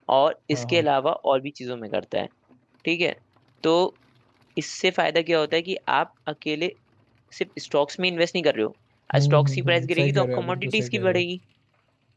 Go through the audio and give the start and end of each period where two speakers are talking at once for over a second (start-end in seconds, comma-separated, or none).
9.2-11.2